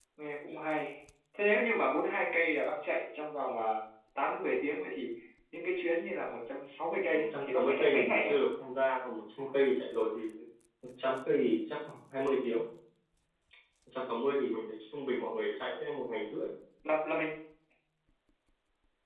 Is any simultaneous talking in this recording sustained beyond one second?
Yes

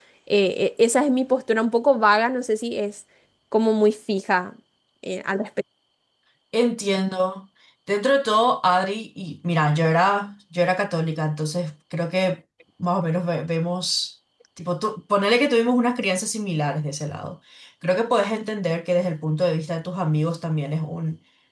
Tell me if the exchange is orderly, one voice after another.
Yes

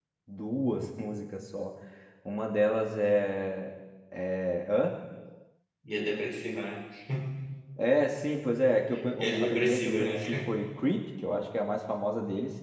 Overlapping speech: Yes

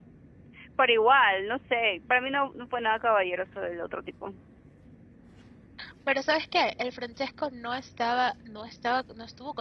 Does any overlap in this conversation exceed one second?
No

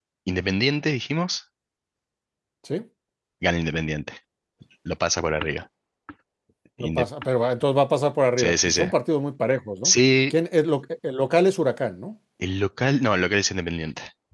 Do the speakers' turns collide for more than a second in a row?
No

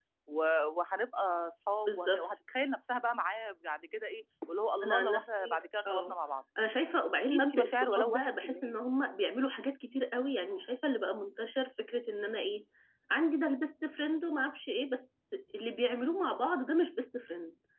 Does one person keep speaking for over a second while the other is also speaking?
Yes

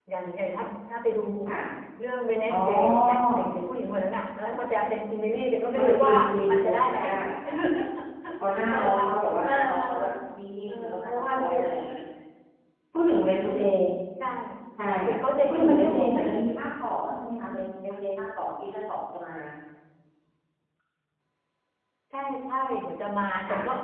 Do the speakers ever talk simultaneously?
Yes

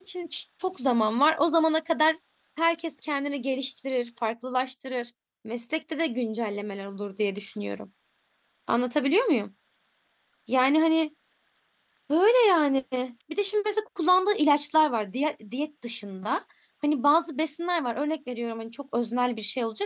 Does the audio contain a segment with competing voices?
No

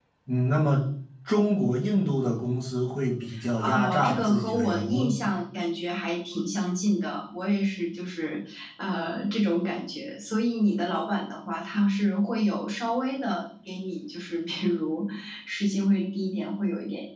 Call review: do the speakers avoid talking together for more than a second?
No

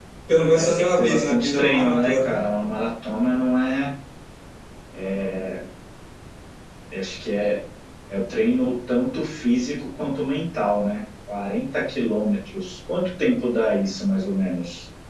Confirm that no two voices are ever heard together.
No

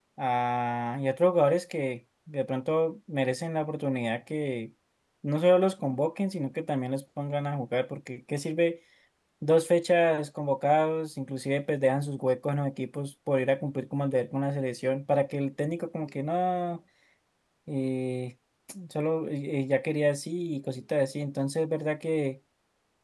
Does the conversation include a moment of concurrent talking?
No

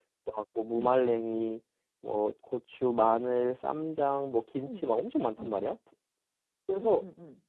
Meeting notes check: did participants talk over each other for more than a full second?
No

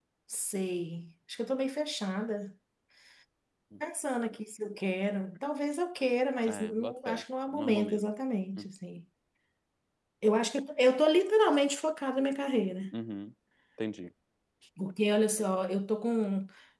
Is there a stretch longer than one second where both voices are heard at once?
Yes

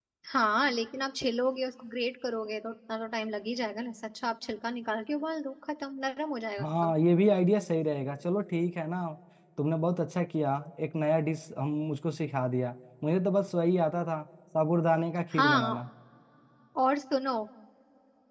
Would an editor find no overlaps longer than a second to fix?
Yes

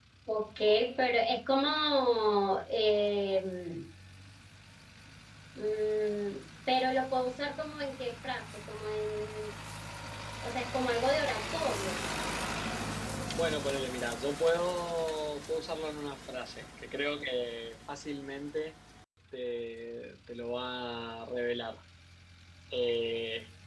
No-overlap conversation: Yes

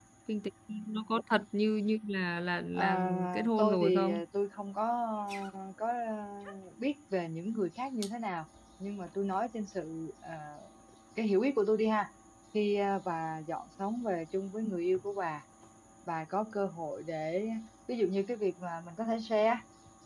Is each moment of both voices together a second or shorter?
No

